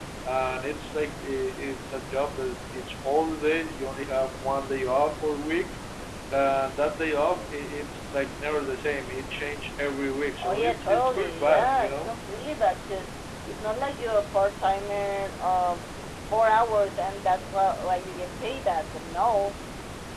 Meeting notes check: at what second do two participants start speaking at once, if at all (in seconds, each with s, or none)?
10.4 s